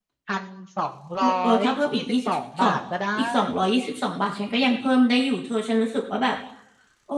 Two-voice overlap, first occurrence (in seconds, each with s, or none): 1.2 s